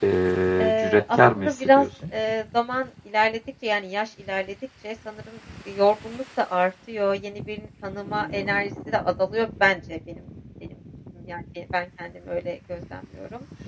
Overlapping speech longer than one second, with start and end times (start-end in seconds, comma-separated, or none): 0.6-1.9